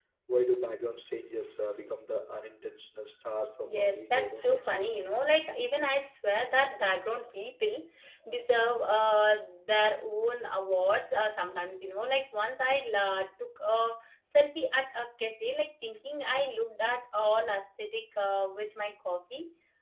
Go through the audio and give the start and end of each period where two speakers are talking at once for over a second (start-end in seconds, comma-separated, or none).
3.6-5.0